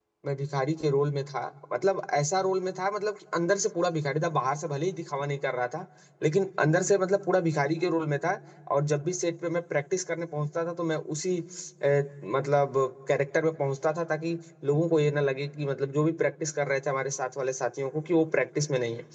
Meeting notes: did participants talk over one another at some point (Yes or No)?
No